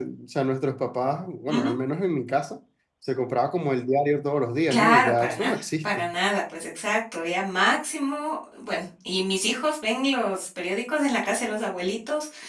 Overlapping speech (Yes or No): Yes